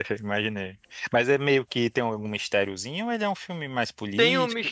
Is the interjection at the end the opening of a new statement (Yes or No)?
Yes